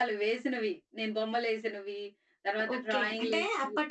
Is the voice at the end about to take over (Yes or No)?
Yes